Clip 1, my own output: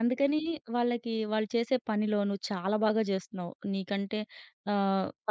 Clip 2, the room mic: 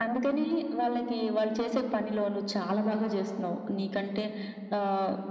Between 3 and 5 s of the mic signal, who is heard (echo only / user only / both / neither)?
echo only